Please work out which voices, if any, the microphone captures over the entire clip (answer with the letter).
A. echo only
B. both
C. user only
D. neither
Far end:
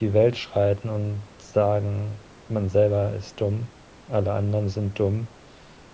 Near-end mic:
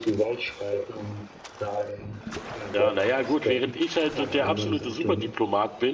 B